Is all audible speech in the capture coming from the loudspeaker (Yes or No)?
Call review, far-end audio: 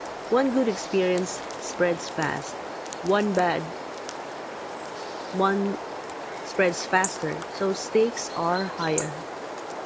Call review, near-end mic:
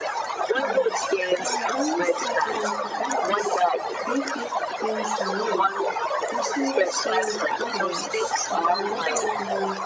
No